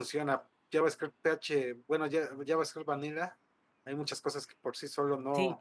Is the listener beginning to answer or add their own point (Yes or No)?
Yes